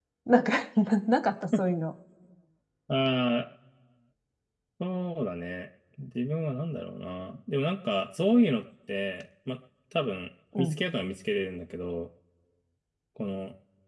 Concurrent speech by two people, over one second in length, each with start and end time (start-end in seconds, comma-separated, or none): none